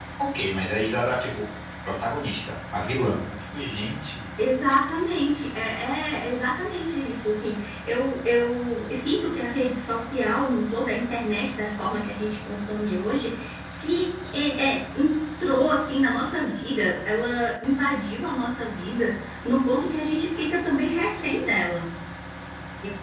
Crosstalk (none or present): none